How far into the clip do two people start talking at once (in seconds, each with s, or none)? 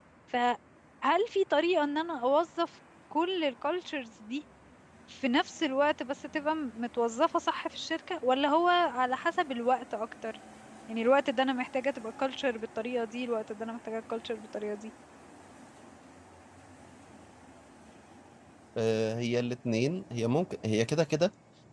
none